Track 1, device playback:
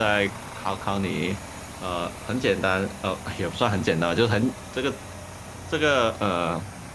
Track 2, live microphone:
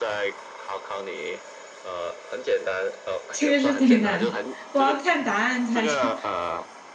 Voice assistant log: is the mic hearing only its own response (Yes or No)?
No